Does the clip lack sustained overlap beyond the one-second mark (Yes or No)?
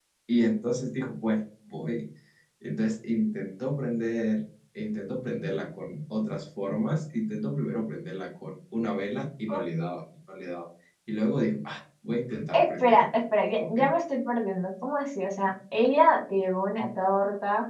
No